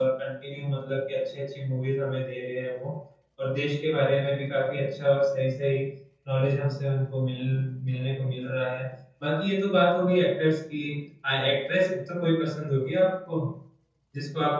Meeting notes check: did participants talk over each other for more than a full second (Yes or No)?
No